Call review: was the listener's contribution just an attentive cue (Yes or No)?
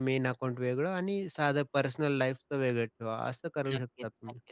No